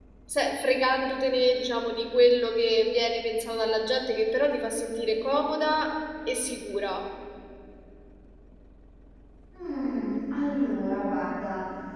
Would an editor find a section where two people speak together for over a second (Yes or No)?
No